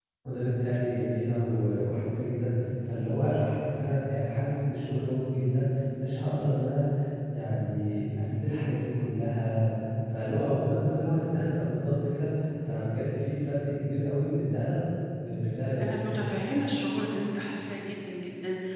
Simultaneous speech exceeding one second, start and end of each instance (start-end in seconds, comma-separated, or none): none